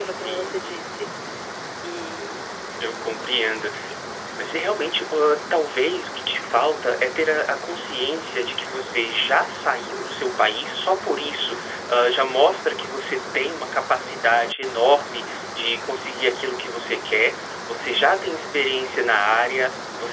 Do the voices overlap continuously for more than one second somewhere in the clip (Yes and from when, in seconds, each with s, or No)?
No